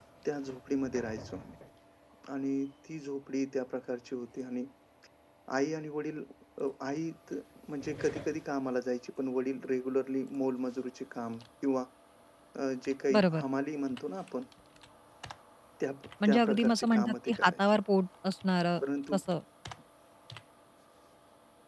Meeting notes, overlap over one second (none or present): present